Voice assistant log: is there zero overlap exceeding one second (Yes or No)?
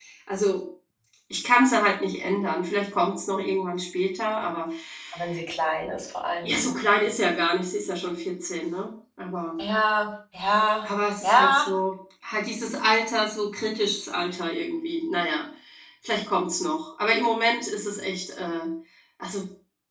Yes